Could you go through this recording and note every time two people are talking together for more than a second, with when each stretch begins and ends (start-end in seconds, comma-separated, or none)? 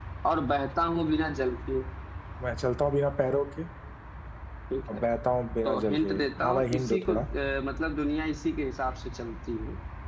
5.7-7.2